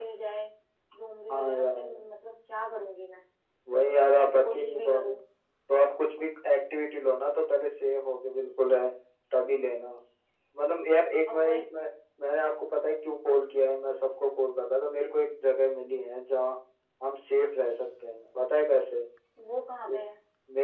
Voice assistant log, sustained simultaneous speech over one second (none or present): present